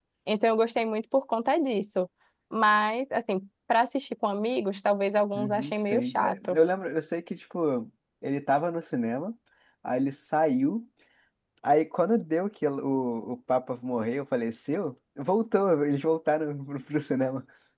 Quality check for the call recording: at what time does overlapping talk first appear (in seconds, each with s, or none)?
5.3 s